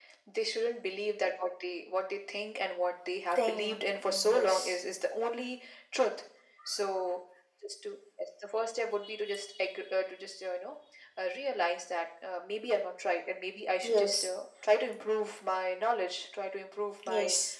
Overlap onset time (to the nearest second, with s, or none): 3 s